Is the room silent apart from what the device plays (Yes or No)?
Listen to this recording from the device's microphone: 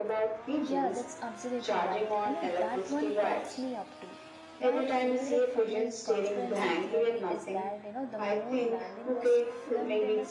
No